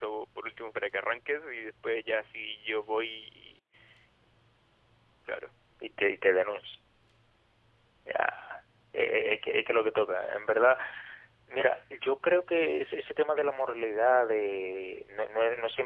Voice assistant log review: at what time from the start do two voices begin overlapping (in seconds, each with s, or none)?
none